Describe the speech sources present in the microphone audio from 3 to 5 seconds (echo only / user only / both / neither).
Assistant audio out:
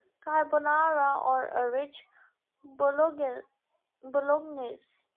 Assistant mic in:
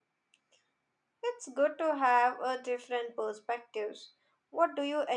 user only